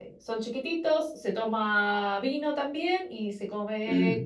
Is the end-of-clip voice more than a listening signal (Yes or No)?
No